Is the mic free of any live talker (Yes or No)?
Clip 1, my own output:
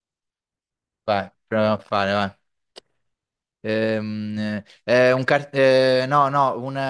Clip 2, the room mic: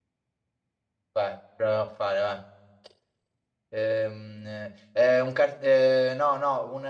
Yes